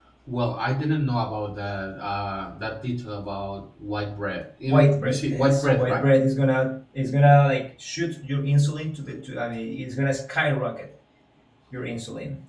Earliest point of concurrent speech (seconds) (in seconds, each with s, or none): 4.7 s